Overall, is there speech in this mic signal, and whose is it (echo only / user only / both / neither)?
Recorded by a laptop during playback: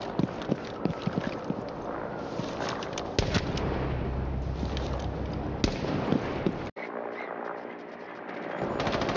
neither